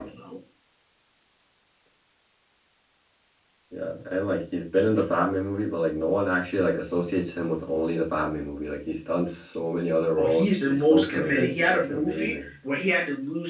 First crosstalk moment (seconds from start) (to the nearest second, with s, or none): 10 s